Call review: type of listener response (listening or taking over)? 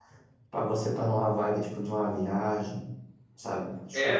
taking over